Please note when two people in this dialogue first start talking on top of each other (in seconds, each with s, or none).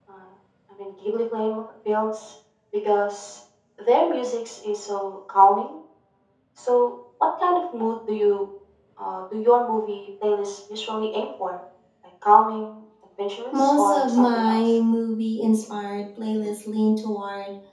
13.5 s